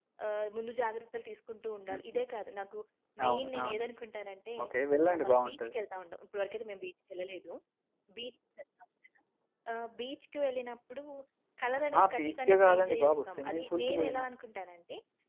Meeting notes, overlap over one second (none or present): present